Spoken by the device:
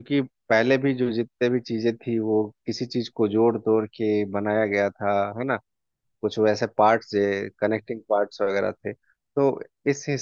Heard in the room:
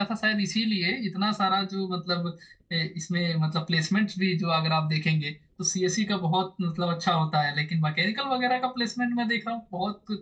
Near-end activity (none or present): present